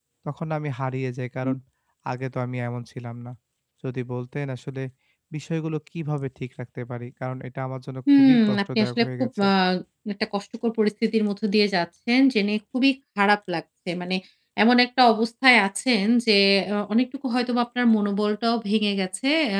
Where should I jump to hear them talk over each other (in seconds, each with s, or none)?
8.1 s